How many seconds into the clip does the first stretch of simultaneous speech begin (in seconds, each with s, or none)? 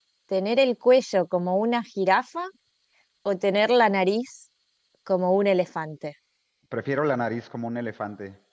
none